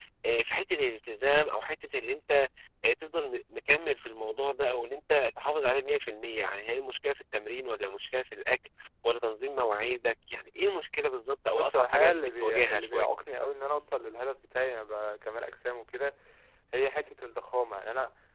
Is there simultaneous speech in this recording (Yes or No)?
Yes